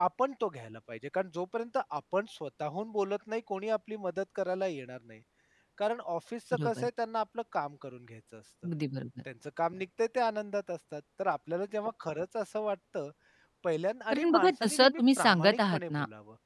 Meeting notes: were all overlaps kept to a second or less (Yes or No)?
No